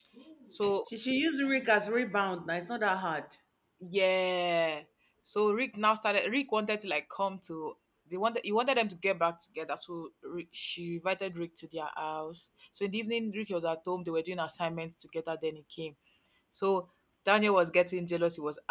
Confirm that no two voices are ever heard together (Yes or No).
Yes